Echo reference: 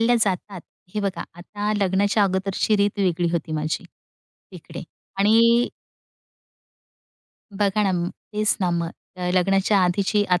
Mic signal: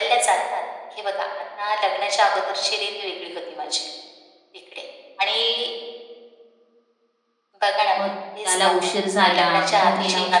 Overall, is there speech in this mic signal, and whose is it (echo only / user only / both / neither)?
both